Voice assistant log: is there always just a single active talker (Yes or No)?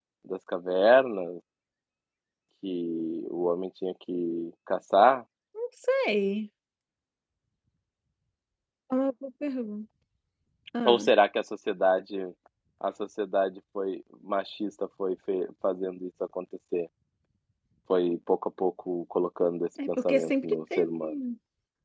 No